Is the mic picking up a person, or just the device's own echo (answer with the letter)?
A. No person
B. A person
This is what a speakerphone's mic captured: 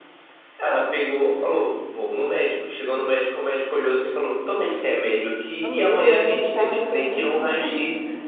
B